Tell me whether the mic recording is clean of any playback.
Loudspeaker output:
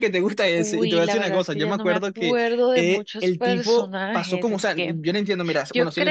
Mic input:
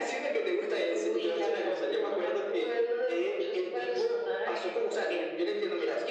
No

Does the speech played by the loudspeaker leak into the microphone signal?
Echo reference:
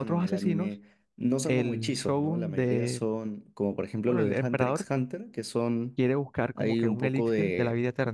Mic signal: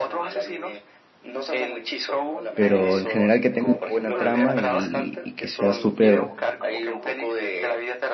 Yes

